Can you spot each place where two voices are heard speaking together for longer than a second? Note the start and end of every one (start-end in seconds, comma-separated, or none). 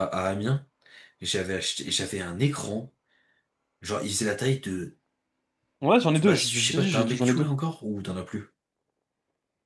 6.1-7.5